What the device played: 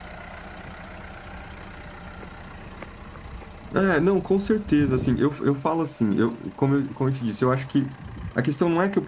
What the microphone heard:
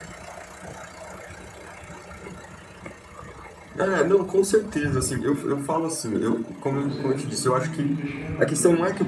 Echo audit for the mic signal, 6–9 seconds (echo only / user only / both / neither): both